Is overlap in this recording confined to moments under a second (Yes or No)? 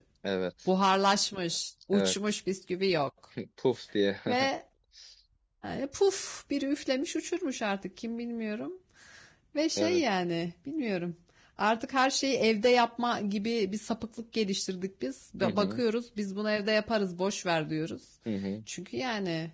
Yes